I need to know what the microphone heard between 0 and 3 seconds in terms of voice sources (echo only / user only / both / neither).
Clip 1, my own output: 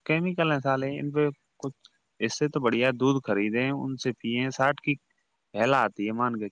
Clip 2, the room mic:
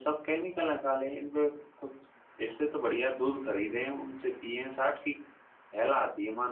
echo only